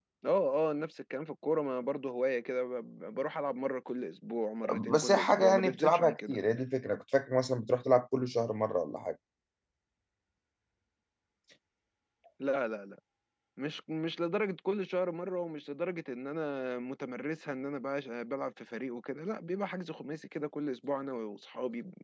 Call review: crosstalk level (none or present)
present